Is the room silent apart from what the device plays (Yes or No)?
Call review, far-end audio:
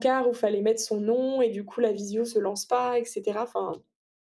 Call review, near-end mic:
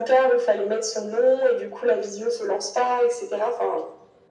Yes